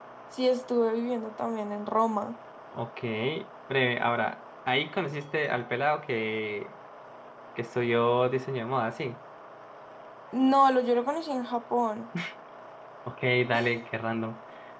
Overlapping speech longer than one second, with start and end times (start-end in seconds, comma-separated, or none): none